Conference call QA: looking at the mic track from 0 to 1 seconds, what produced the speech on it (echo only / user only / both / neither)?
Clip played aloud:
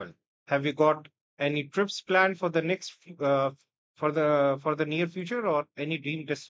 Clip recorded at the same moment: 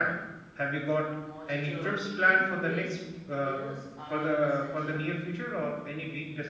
echo only